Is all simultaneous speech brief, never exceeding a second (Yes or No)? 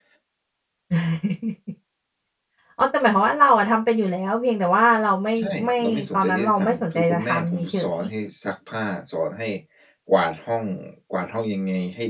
No